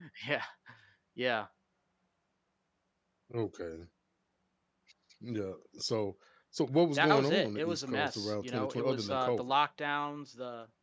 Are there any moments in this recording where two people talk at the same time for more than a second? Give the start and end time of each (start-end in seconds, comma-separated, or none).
7.0-9.6